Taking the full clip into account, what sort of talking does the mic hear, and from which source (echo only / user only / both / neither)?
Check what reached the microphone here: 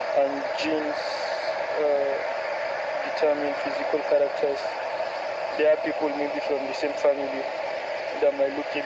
echo only